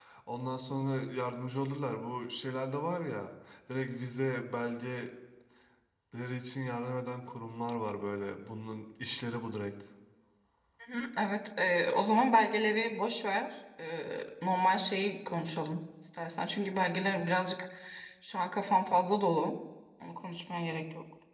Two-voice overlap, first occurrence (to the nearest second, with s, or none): none